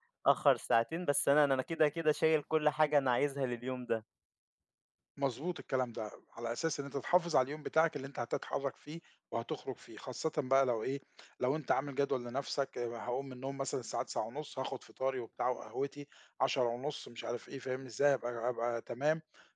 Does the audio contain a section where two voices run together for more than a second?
No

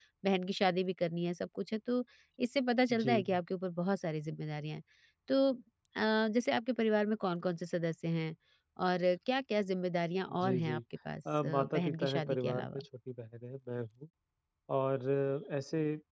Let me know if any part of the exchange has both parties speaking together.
Yes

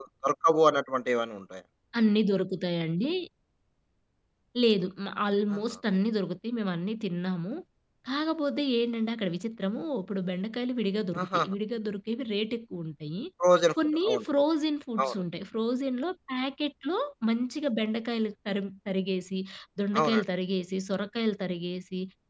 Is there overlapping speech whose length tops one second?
No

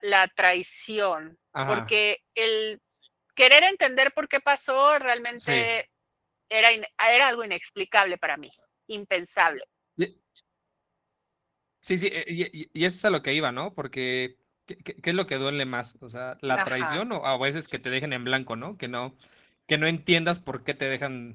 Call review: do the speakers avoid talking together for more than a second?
Yes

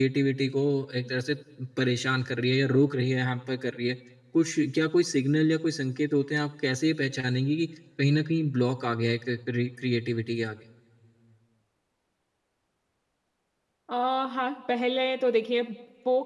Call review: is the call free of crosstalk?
Yes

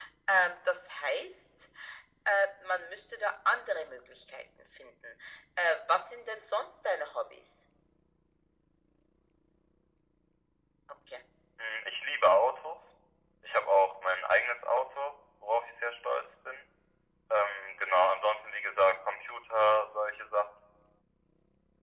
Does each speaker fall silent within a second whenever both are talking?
Yes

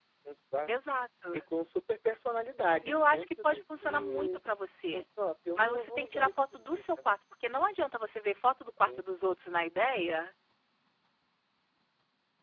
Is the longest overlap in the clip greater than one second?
Yes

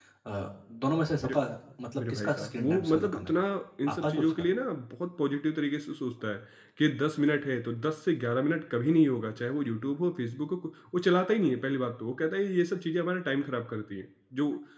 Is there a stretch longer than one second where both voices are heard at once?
Yes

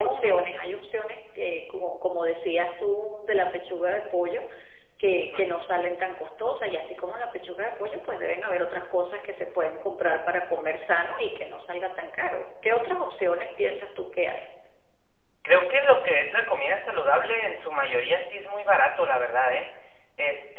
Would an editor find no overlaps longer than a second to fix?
Yes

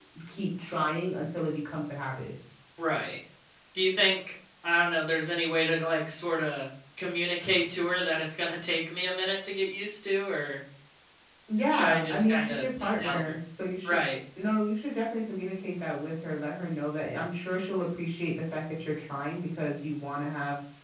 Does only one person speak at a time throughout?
No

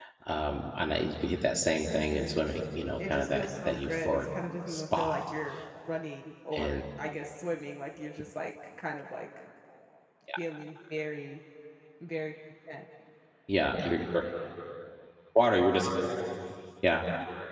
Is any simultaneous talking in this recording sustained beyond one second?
Yes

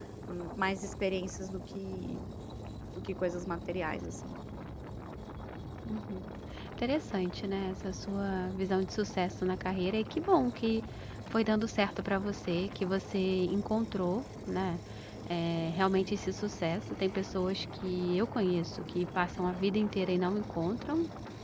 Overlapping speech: No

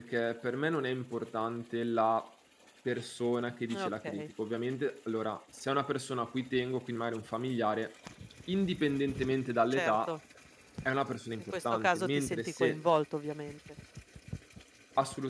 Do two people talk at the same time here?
Yes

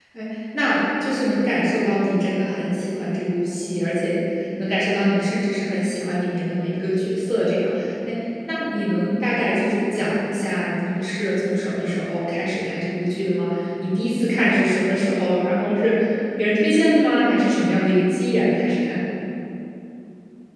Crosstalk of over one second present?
No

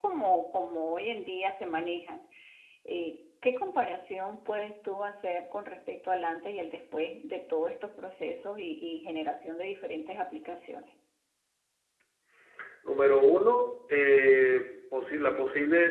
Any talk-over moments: No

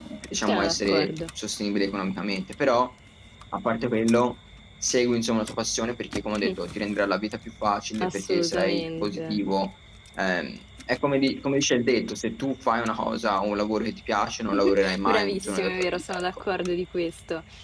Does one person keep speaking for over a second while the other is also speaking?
Yes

